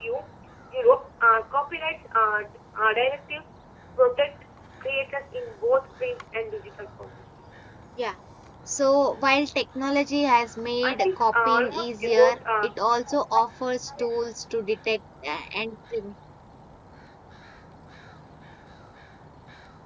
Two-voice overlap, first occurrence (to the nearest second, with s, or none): 11 s